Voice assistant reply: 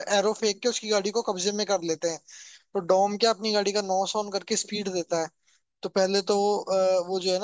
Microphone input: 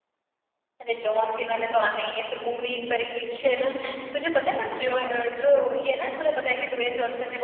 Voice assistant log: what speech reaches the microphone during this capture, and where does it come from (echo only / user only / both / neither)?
user only